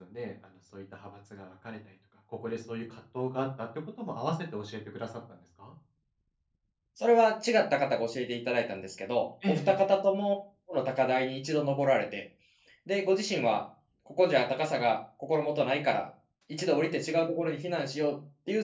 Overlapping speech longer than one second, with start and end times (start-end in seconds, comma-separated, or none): none